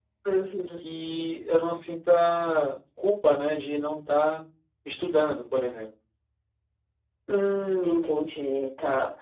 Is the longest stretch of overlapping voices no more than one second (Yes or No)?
Yes